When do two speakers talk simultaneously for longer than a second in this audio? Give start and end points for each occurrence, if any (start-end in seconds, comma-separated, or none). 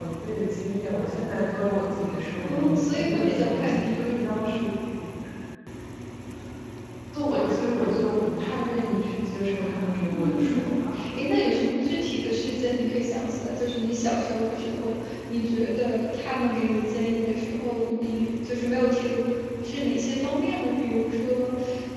2.5-4.0